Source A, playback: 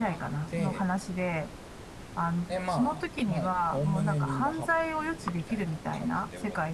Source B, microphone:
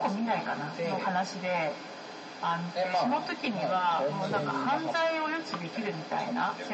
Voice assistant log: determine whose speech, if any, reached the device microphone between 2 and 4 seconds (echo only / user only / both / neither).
echo only